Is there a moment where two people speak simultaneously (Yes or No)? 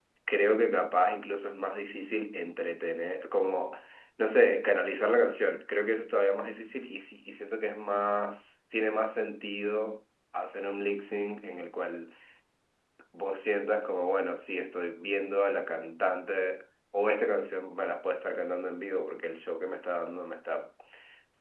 No